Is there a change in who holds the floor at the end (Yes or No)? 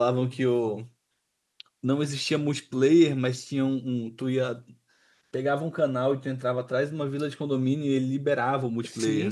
Yes